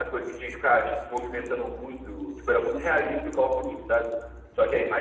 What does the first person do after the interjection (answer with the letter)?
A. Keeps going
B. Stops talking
A